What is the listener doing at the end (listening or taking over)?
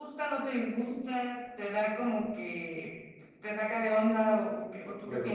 taking over